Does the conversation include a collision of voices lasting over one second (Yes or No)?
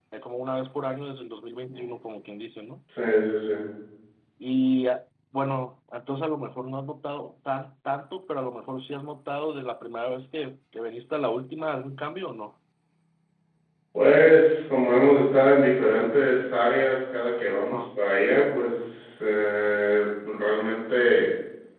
No